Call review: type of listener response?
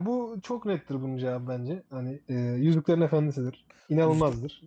taking over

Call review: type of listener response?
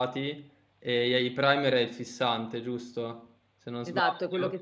taking over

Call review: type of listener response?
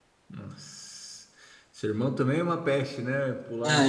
taking over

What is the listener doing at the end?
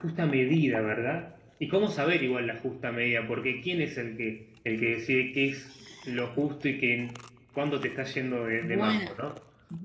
taking over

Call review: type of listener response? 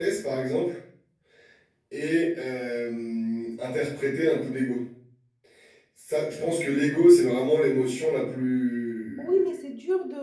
taking over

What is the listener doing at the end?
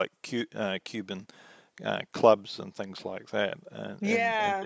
taking over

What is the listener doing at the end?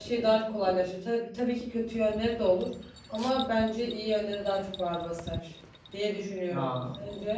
taking over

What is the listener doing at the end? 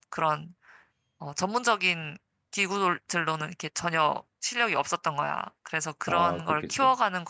listening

